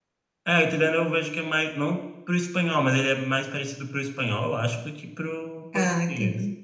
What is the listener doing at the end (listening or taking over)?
listening